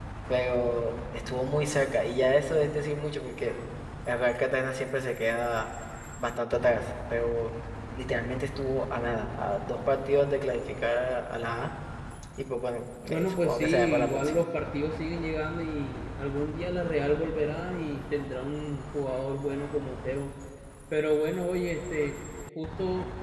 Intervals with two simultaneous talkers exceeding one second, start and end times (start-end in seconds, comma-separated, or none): 13.1-14.5